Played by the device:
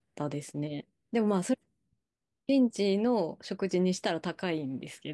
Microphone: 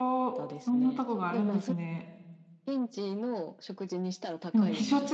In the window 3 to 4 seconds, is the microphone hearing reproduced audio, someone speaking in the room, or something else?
echo only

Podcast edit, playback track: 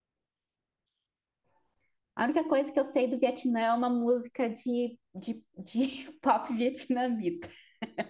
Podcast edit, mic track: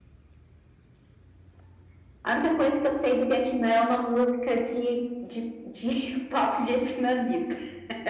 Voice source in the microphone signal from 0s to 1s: neither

